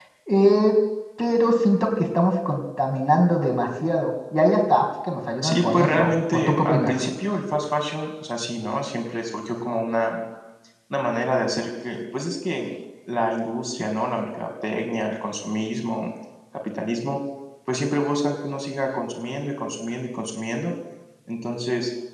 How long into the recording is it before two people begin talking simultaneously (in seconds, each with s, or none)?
5.4 s